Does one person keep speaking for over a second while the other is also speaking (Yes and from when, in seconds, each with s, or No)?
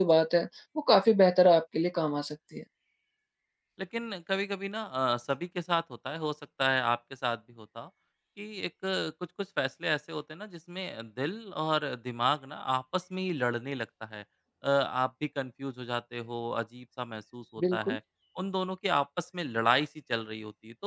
No